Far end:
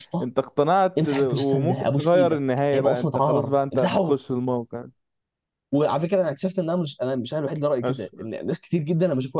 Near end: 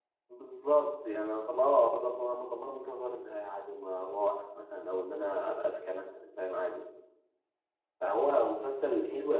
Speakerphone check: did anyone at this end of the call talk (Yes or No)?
Yes